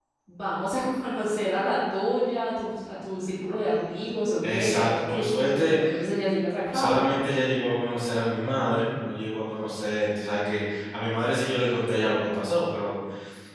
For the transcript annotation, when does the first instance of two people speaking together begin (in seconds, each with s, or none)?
4.4 s